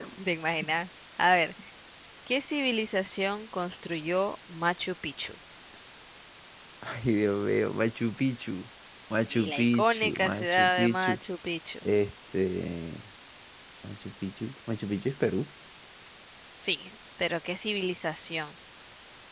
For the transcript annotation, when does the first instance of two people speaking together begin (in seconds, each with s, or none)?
9.3 s